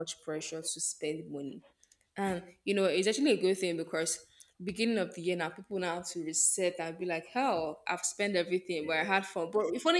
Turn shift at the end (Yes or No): No